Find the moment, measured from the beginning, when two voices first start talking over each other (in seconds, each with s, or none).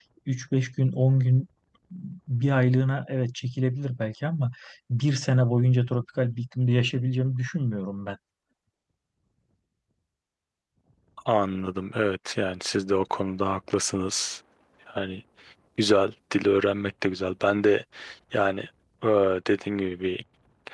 none